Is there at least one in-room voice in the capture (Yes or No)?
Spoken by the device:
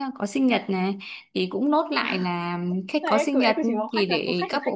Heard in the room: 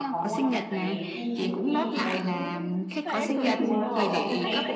Yes